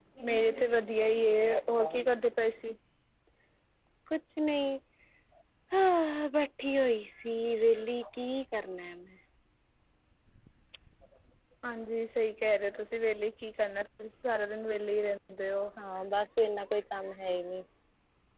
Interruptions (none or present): none